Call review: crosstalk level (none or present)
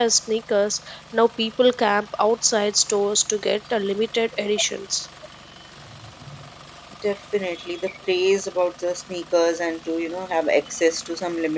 none